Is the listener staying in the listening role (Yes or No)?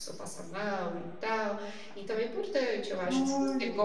Yes